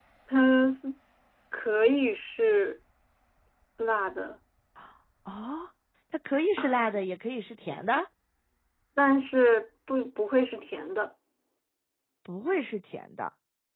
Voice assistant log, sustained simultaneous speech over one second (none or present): none